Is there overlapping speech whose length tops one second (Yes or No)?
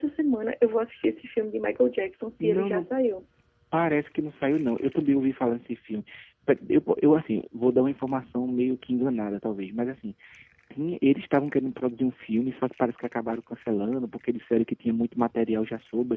No